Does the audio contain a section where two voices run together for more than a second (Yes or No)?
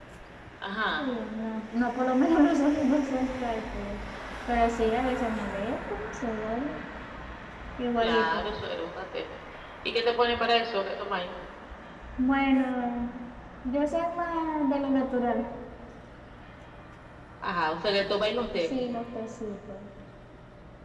No